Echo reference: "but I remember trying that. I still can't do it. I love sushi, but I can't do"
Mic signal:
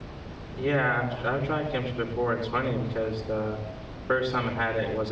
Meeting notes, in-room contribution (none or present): present